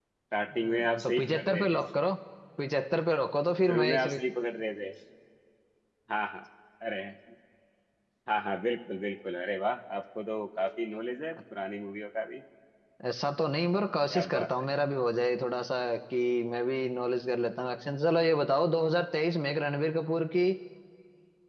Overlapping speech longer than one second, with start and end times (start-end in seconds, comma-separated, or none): 0.5-1.8